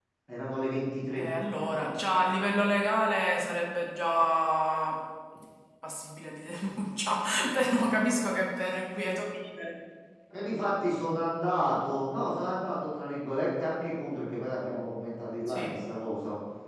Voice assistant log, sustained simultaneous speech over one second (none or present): none